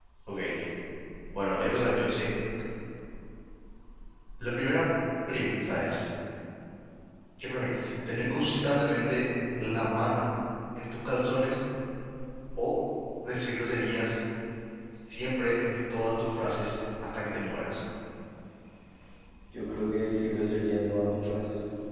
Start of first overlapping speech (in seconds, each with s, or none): none